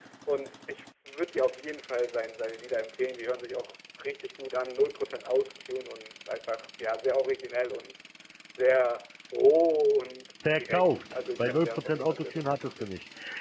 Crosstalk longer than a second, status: present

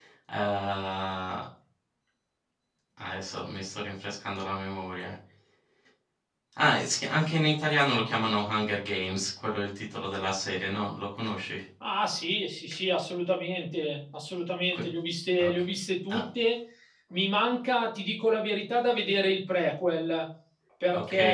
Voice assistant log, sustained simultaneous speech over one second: none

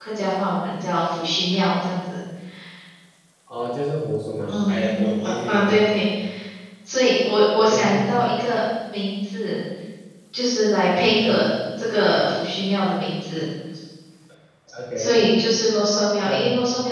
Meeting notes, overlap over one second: present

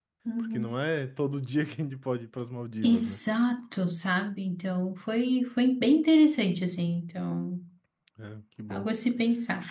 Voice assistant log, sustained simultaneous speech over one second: none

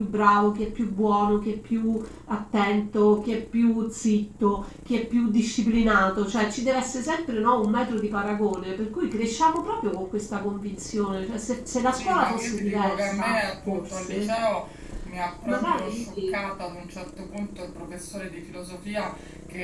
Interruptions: present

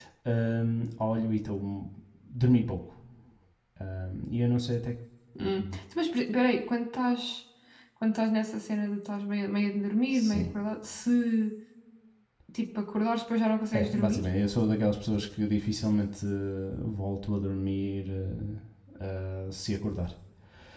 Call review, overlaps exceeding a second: none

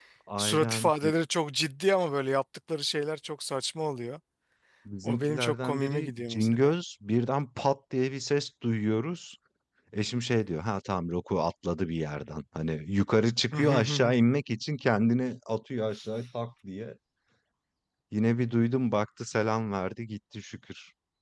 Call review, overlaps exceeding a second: present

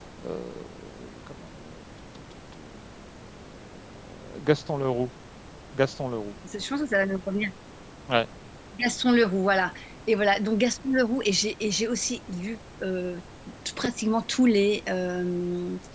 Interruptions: none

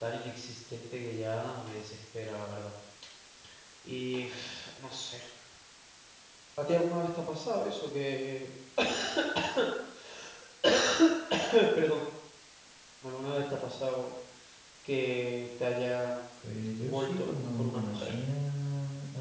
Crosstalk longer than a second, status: present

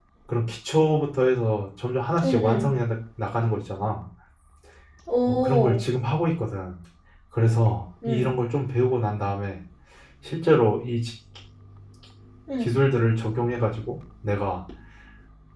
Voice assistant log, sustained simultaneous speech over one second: none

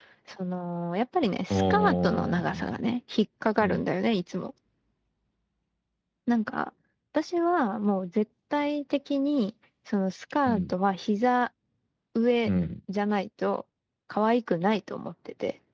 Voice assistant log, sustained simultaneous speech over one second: present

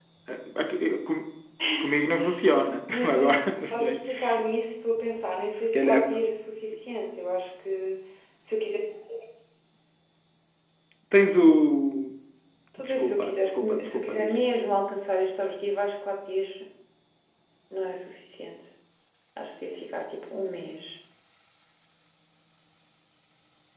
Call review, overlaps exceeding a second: present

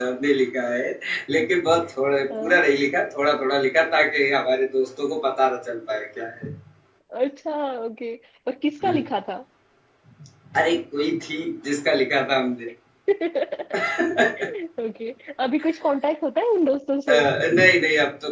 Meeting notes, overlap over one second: none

